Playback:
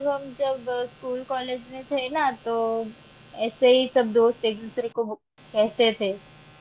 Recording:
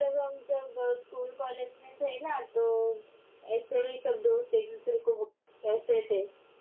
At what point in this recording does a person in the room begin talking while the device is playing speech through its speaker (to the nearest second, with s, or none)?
none